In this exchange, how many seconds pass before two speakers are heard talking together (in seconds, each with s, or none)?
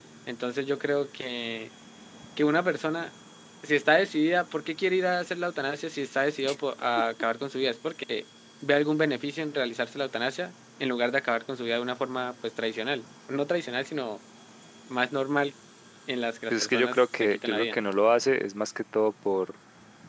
16.5 s